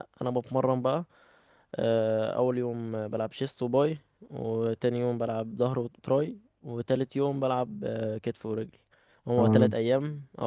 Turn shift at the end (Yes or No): No